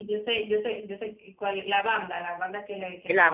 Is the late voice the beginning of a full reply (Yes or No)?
Yes